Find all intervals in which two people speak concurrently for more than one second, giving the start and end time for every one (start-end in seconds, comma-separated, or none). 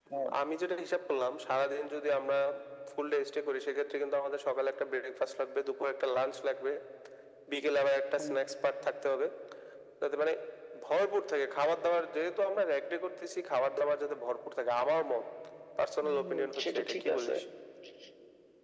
16.0-17.3